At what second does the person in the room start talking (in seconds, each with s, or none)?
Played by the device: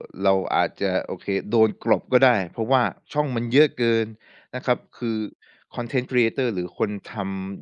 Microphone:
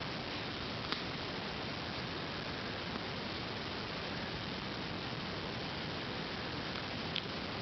none